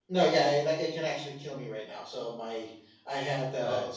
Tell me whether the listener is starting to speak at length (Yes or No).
No